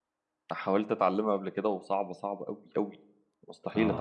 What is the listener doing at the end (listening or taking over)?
taking over